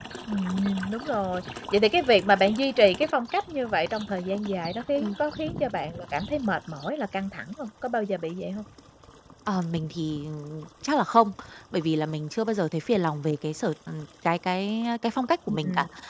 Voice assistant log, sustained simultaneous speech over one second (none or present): none